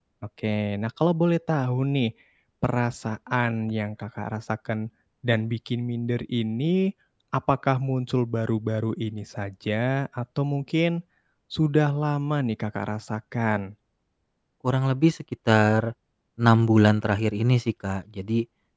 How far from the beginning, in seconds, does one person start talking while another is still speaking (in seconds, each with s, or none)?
none